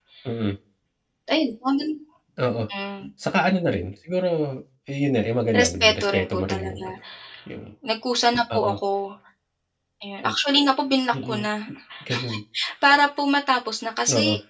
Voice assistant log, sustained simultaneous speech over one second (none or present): present